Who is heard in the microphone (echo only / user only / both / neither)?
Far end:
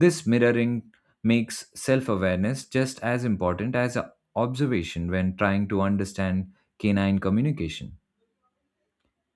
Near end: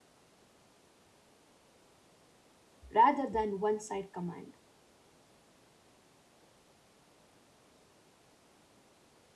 user only